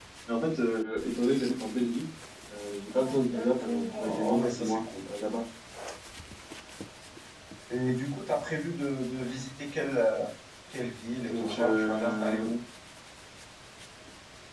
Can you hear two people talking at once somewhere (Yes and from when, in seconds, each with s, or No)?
Yes, from 2.9 s